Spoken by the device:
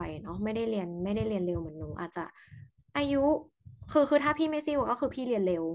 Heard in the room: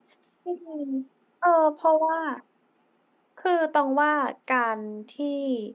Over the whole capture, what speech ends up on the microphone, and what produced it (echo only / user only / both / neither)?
user only